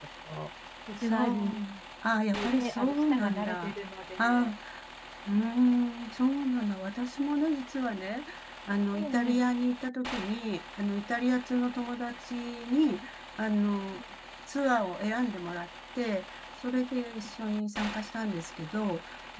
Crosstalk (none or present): present